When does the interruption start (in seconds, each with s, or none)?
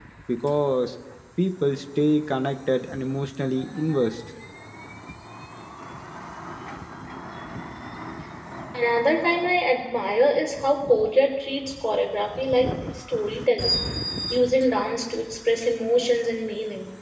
none